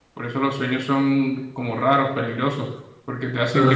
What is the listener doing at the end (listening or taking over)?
listening